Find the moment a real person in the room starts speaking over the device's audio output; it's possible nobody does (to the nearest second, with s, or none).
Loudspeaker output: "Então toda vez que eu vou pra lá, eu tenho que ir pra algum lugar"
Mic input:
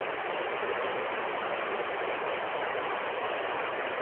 none